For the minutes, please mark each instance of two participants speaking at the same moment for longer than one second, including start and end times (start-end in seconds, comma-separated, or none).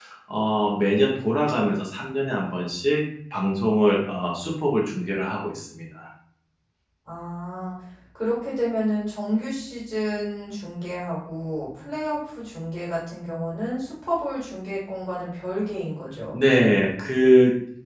none